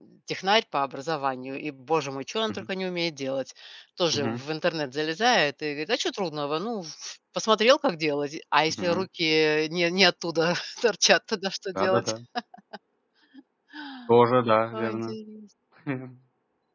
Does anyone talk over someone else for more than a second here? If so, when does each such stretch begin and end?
none

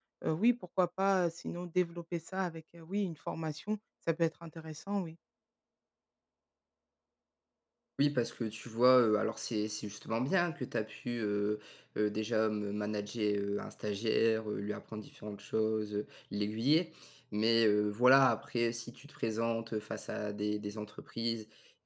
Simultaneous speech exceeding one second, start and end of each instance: none

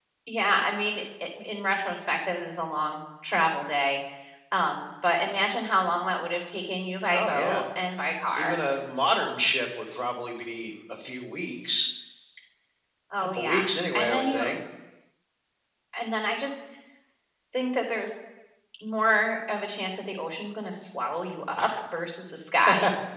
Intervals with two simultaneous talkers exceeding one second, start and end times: 13.2-14.4

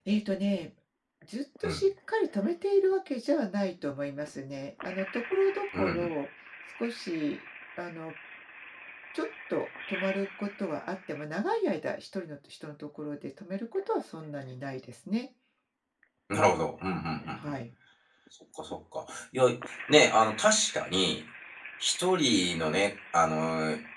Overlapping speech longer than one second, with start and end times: none

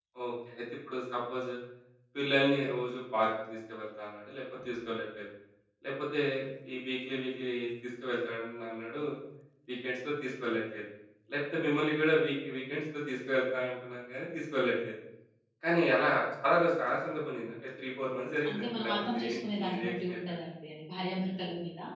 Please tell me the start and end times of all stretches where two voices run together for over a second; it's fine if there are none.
18.5-20.3

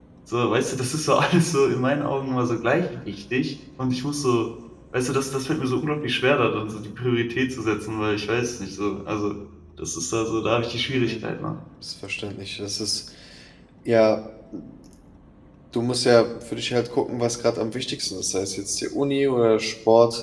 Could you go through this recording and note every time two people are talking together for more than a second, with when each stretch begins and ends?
none

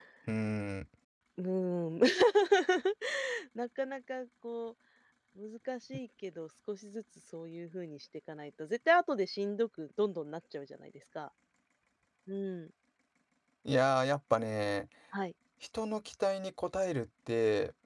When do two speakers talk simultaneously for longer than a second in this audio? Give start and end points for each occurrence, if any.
none

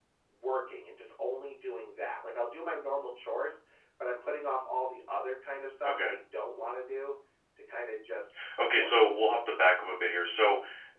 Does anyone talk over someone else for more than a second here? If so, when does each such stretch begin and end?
none

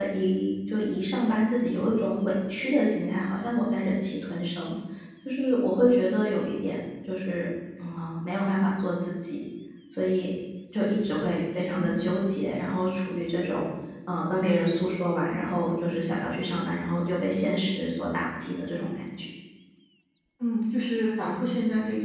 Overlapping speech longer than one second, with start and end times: none

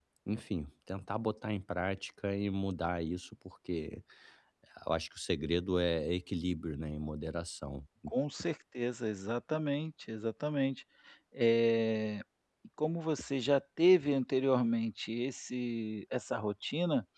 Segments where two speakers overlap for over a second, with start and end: none

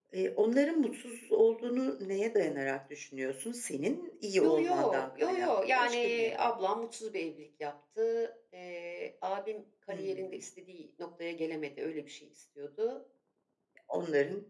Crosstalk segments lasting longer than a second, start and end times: 4.4-6.5

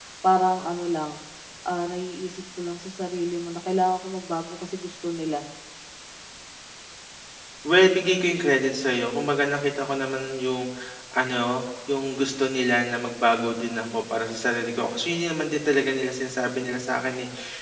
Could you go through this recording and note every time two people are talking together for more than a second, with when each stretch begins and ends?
none

